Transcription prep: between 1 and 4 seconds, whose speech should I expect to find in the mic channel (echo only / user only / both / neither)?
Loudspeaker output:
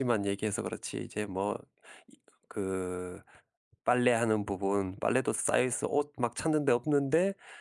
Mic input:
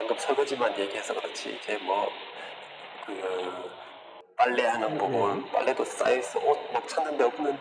echo only